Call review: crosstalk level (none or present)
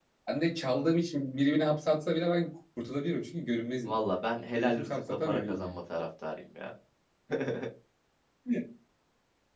present